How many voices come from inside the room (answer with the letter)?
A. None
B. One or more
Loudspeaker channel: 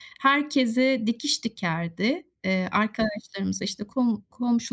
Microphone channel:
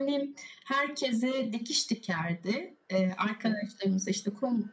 A